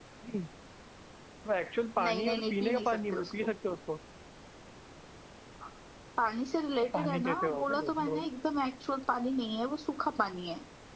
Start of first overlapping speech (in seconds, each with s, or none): 2.0 s